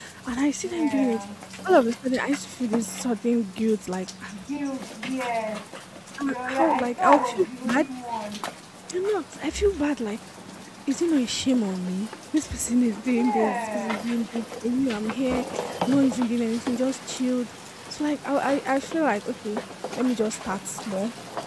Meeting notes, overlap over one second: present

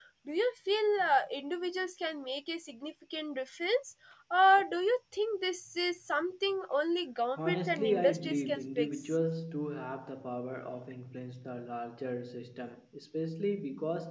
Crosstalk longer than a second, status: present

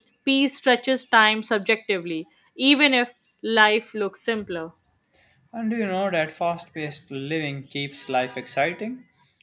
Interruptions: none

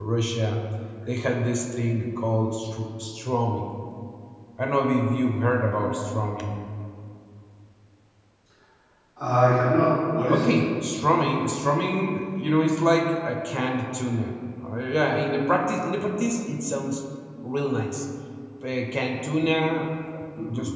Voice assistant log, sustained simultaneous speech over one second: none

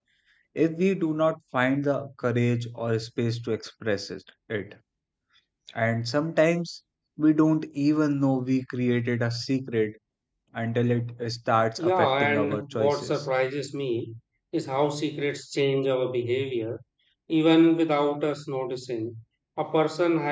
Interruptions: present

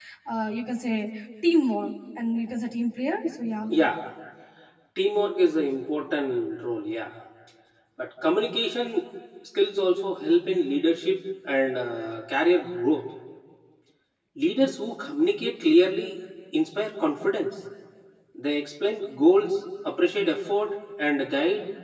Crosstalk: none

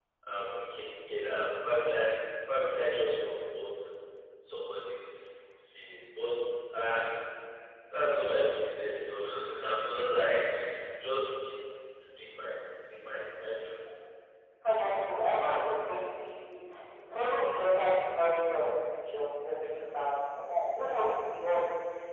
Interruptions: none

